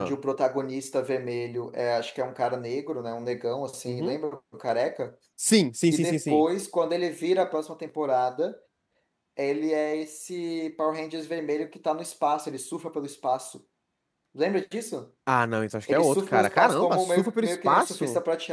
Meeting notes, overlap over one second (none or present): present